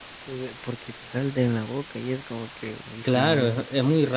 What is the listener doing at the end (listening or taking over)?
taking over